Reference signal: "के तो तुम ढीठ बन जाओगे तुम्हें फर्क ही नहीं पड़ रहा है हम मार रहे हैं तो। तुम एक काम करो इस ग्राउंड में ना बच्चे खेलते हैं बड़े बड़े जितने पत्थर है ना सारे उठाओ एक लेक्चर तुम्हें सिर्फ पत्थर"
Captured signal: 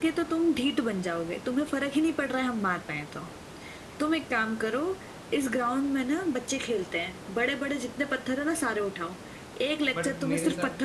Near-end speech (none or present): present